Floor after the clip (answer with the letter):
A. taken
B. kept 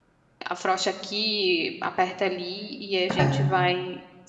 B